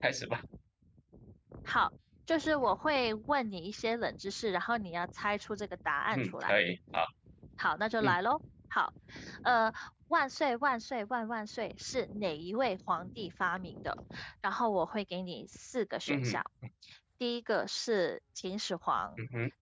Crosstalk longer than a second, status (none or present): none